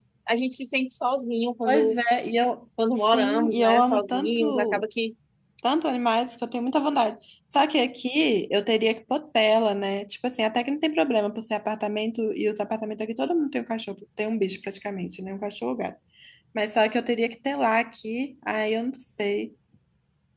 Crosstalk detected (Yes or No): Yes